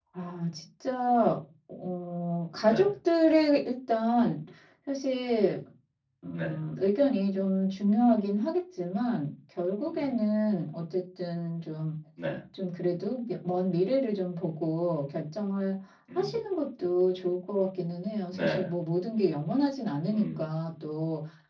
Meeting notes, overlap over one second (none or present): none